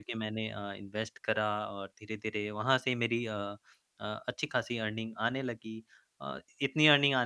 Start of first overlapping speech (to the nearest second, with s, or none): none